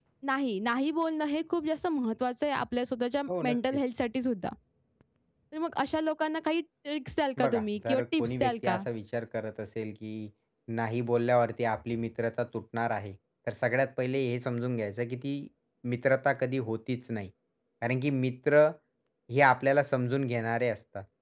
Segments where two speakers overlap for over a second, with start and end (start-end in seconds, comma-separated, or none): 7.4-8.8